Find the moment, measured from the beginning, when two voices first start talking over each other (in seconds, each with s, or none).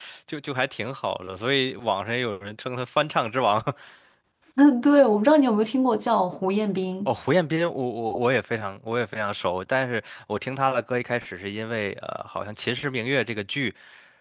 none